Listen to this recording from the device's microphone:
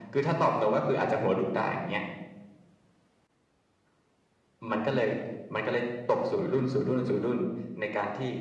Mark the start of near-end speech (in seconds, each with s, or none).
none